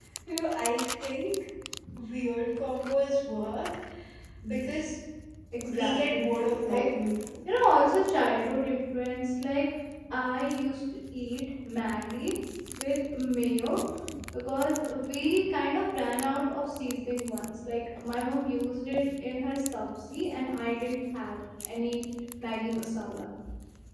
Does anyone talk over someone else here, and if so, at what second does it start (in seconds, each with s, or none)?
5.6 s